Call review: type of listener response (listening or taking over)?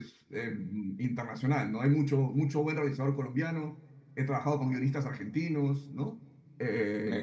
listening